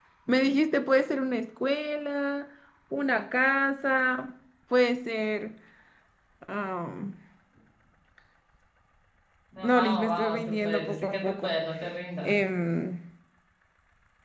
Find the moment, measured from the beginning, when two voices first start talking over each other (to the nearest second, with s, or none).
10 s